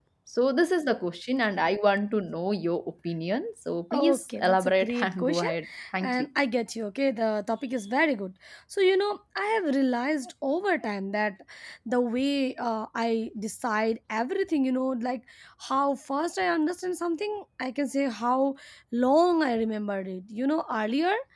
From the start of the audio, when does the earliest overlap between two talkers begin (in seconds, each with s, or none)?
3.9 s